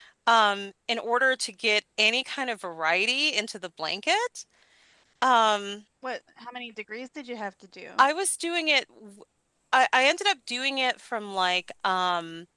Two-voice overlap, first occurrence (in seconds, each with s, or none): none